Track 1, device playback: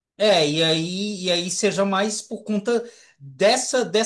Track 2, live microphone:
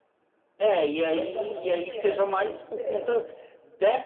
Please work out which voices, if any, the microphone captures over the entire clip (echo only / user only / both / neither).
both